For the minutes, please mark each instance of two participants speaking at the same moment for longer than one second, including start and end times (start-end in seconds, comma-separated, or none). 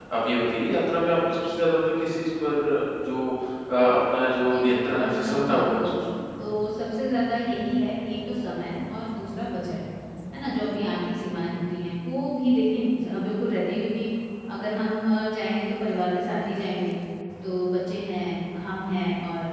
4.5-5.9